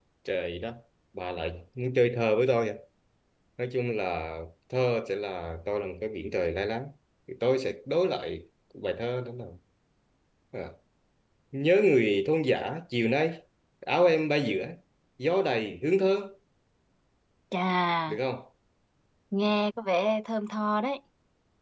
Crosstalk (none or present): none